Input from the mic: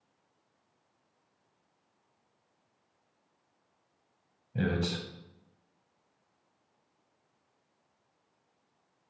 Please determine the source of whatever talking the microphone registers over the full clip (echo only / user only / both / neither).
user only